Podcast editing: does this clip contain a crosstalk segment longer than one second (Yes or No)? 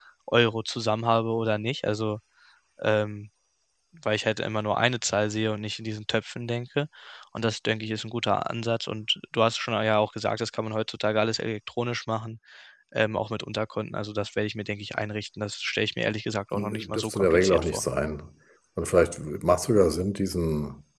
Yes